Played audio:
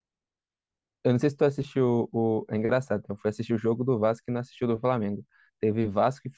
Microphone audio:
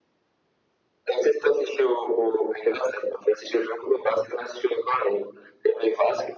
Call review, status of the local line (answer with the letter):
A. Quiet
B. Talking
A